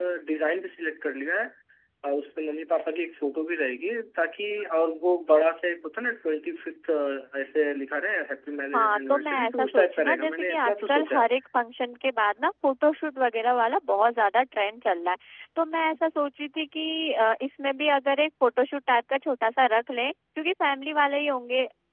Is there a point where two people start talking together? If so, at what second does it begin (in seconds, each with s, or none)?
8.7 s